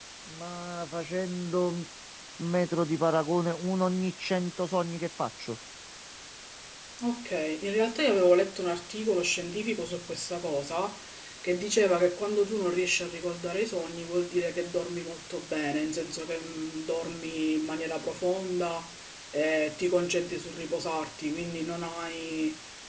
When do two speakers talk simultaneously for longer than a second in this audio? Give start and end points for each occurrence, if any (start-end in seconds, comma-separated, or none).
none